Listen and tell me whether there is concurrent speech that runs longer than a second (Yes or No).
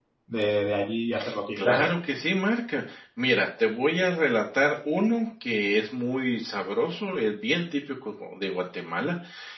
No